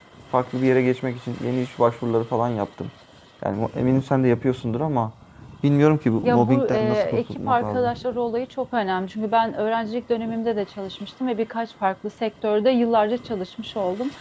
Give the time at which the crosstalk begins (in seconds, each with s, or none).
6.2 s